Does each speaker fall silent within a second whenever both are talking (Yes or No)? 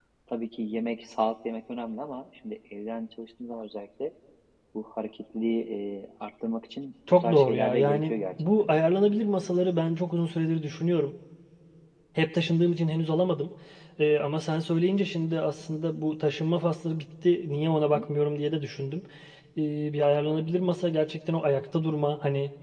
No